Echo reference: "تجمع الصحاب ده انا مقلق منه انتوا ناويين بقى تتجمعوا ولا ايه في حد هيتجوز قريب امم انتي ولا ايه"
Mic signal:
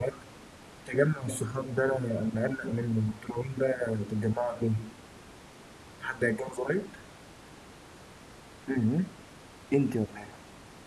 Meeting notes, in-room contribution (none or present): none